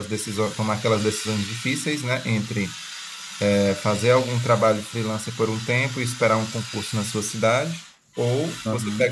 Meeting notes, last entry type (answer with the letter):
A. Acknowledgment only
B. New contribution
A